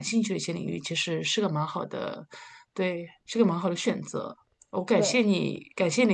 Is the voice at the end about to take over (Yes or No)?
No